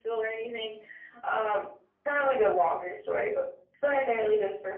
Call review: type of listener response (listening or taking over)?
listening